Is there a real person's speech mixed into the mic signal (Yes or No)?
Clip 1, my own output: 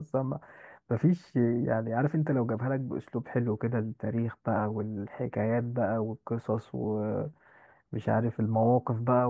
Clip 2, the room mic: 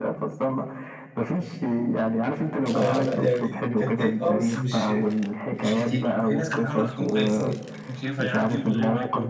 Yes